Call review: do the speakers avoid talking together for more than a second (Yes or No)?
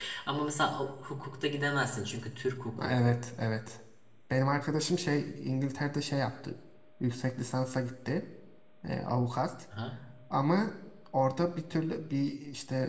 Yes